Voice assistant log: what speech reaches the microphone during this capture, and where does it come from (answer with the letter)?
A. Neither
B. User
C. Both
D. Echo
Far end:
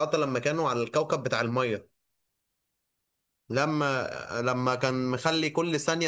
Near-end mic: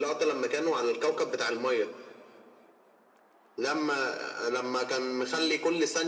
D